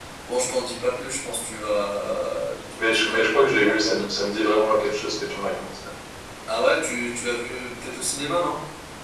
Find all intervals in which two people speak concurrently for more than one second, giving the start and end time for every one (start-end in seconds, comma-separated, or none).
2.8-4.2